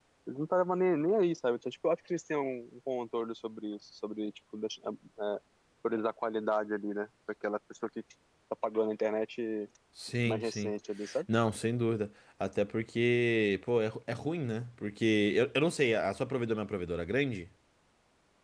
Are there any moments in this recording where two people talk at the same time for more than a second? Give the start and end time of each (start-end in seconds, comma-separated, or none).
none